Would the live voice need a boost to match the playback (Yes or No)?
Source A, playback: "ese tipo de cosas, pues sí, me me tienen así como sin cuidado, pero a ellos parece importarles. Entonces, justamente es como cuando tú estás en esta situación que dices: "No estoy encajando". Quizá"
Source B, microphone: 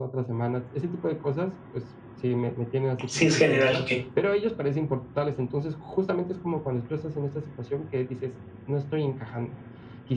No